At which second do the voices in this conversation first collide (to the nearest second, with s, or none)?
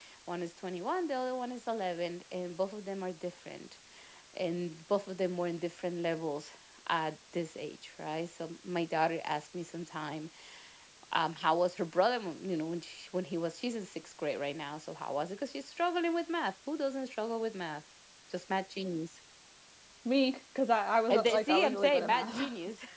21 s